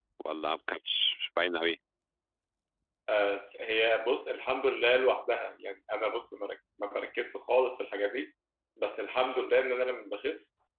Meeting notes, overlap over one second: none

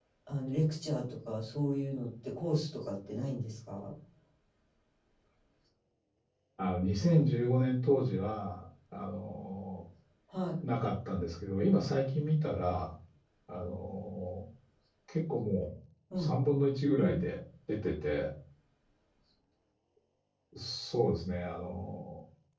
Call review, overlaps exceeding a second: none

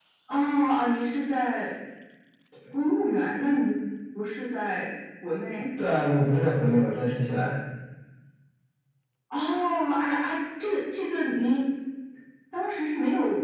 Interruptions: none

